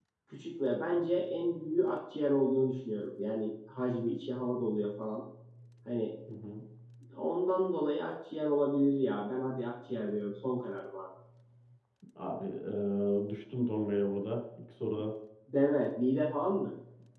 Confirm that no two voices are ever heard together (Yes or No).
Yes